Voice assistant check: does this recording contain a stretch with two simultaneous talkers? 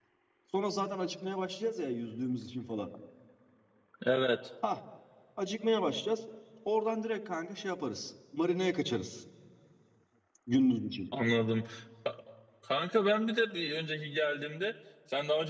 No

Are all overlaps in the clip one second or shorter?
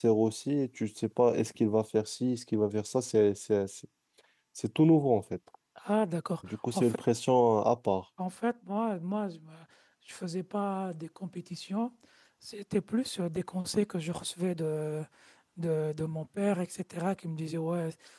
Yes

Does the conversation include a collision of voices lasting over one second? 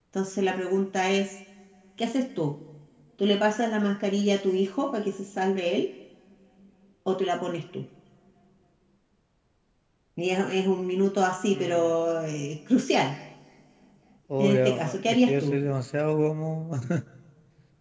Yes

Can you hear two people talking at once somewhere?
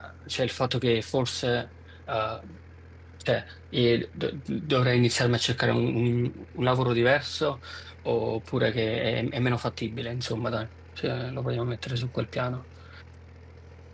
No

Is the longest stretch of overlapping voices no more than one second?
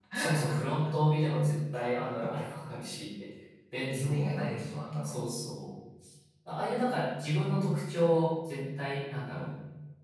No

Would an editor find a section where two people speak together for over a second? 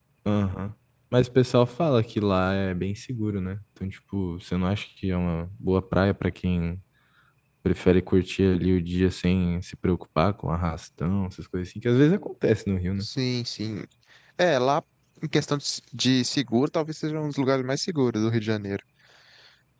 No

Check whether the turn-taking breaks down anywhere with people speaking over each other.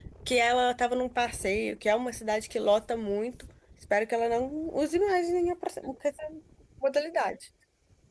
No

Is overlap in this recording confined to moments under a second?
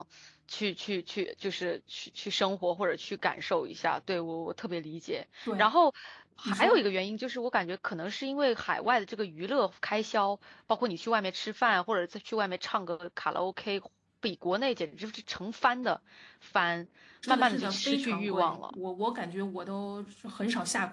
No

